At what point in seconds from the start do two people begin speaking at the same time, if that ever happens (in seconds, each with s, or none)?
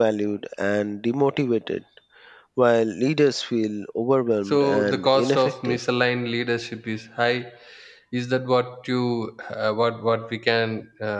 4.5 s